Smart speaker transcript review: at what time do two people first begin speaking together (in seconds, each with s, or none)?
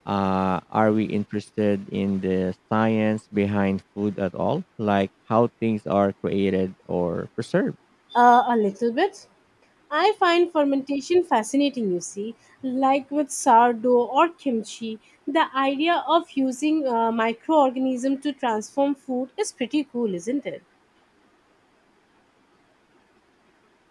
none